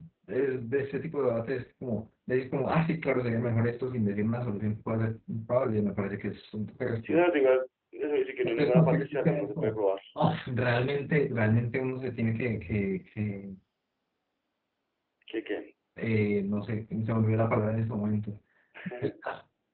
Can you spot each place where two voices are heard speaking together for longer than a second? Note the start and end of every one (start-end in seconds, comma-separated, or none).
8.4-9.8